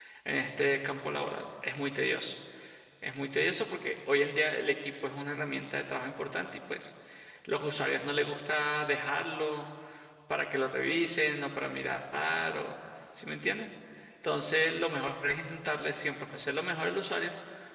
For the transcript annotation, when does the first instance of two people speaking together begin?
none

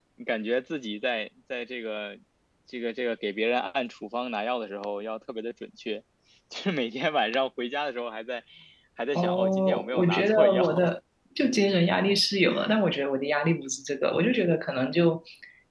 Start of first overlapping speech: 9.2 s

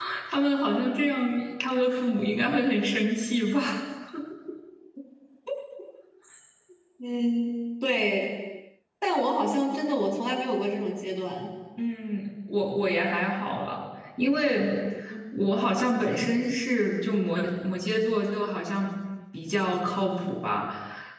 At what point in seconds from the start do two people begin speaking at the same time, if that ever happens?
none

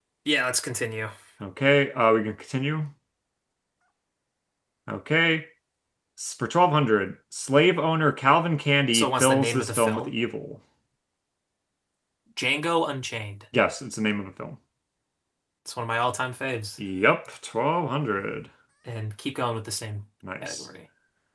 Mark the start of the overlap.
8.9 s

